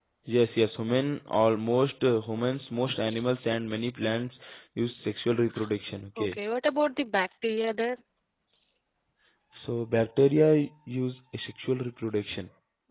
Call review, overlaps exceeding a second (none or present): none